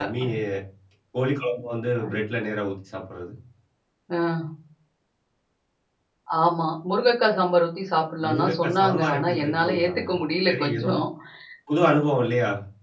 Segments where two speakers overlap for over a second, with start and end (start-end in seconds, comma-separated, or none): 8.2-10.1